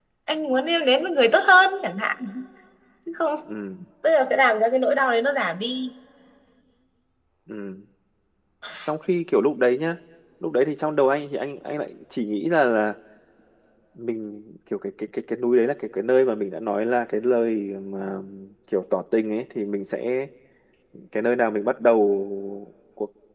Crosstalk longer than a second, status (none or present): none